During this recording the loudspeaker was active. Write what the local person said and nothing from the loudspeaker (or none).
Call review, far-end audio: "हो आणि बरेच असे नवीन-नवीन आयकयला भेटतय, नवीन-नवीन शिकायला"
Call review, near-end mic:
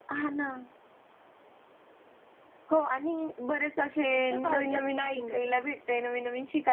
टिकतं का हो ते टिफिनमध्ये